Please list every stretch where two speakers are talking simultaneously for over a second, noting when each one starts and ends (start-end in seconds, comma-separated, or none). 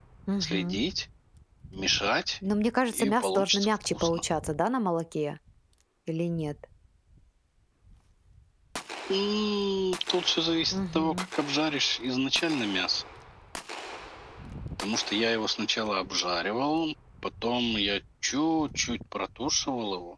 2.9-4.2